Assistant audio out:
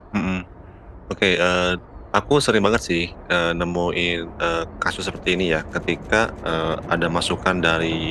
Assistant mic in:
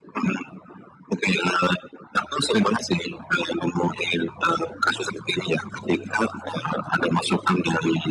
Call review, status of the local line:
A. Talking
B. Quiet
B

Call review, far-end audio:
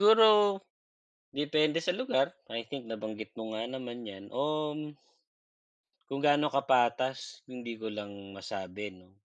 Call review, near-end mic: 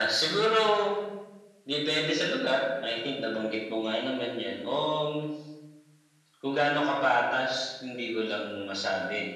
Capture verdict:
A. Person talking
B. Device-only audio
B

